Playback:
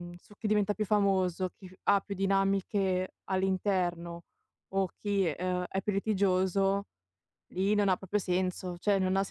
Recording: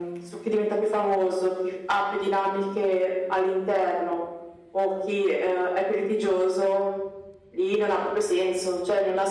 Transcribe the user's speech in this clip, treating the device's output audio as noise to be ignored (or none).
none